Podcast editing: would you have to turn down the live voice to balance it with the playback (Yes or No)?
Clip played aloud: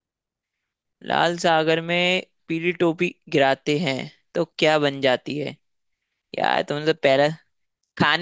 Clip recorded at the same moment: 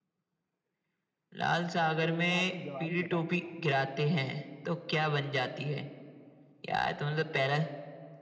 No